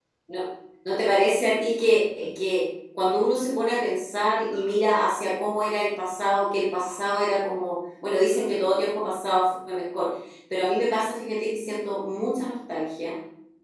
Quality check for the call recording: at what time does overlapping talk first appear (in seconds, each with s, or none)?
none